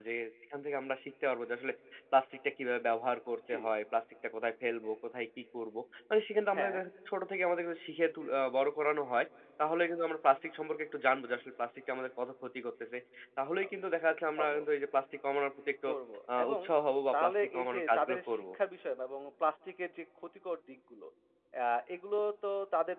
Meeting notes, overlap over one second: present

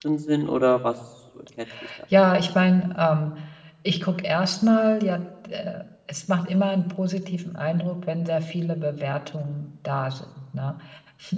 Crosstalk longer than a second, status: none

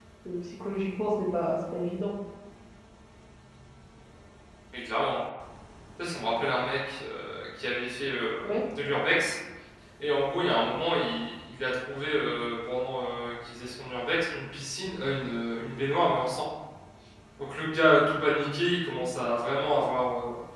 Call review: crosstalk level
none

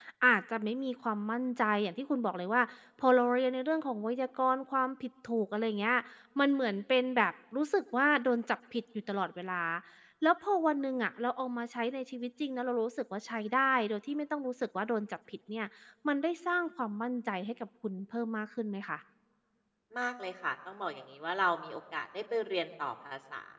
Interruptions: none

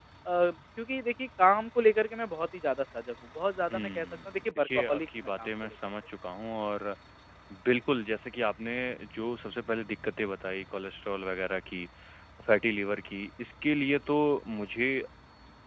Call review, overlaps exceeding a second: present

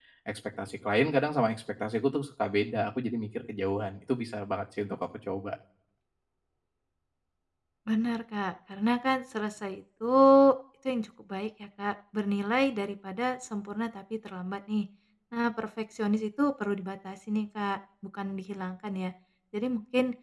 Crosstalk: none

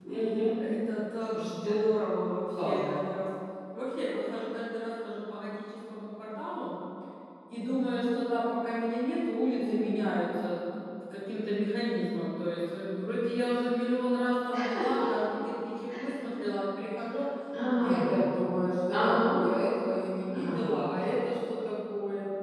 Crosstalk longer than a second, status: none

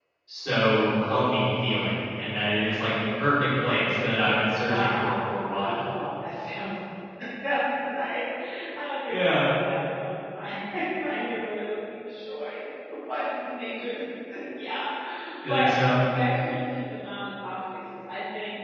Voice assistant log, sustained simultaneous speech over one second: present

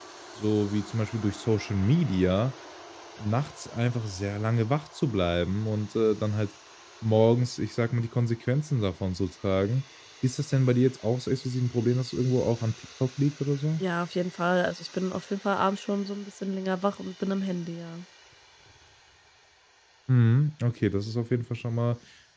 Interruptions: none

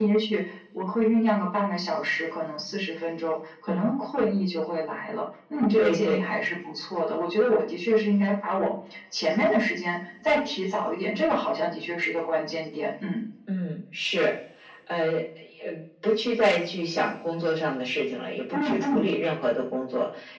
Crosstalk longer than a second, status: none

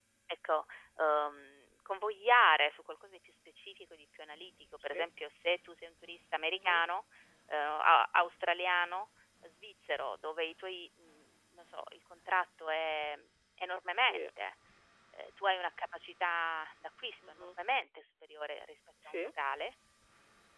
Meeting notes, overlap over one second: none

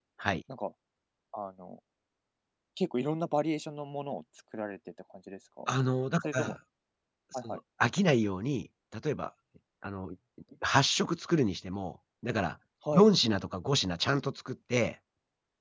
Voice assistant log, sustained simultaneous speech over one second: none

